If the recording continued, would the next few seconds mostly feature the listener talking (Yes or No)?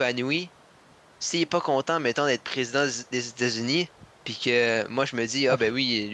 No